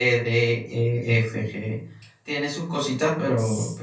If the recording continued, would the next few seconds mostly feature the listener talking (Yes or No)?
Yes